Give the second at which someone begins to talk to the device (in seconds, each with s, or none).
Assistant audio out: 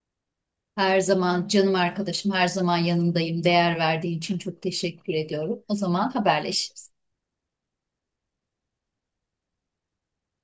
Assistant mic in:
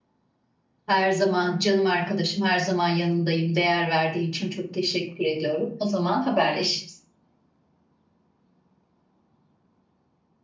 none